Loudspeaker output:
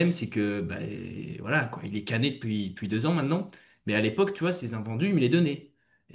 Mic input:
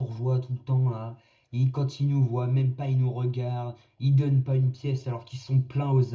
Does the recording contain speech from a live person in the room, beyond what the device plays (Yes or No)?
Yes